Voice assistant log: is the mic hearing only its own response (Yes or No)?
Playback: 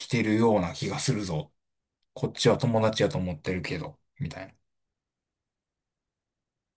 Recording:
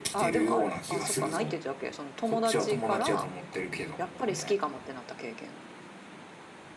No